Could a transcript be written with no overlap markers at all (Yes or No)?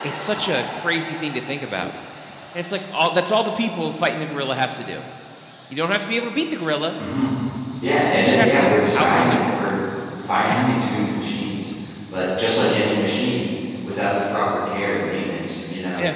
No